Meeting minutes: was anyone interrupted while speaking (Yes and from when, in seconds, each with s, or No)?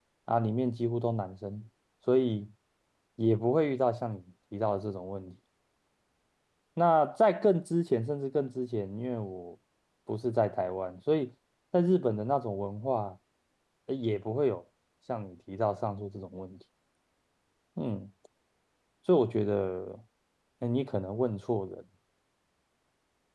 No